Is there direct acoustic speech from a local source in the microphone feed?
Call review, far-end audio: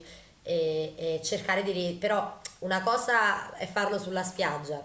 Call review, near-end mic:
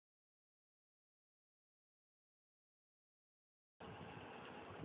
No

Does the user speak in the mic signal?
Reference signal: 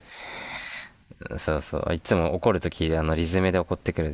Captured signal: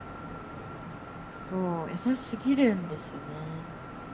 Yes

